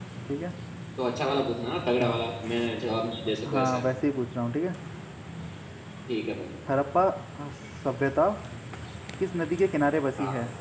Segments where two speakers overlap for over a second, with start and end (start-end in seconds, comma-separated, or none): none